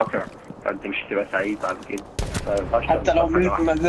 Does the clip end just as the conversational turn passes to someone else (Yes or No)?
Yes